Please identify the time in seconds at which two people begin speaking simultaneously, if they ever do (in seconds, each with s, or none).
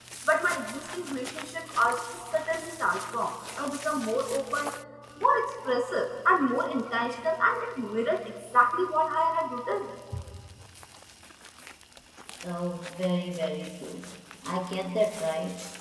none